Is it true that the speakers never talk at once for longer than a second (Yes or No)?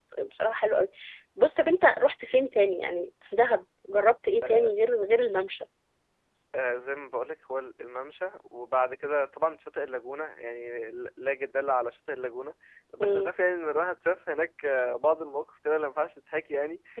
Yes